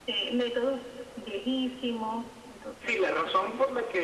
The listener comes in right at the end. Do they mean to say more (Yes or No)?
Yes